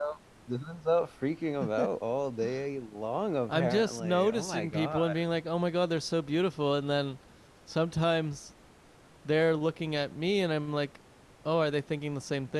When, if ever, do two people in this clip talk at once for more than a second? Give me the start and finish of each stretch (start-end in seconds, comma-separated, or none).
3.5-5.2